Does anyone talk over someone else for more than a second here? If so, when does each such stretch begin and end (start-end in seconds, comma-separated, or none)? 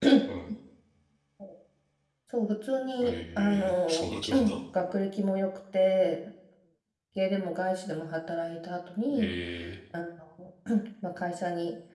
3.0-4.6